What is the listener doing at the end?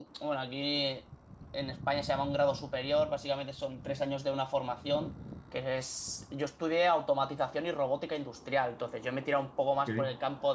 listening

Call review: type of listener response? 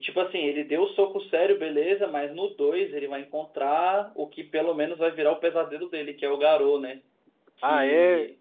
taking over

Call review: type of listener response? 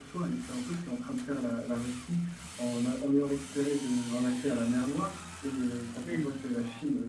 listening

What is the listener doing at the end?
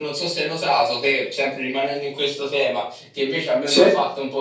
listening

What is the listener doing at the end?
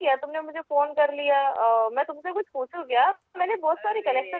taking over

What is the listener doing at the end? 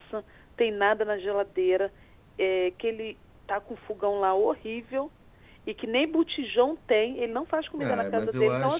taking over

